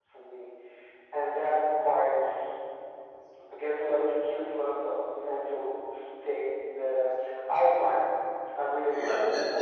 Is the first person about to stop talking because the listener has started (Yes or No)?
Yes